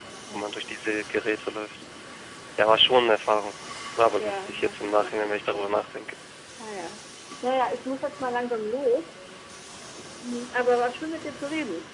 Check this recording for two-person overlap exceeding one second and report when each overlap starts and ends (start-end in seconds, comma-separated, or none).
4.2-5.7